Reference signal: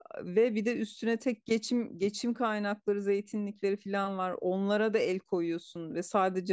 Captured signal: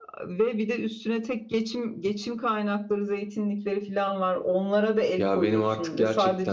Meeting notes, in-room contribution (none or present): present